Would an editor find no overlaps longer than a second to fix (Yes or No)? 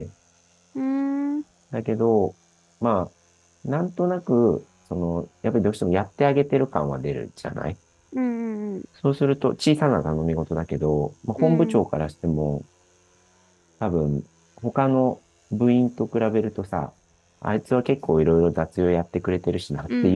Yes